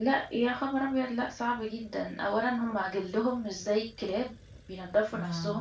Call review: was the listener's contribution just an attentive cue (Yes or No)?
Yes